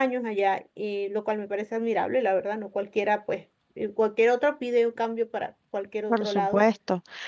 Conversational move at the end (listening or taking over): taking over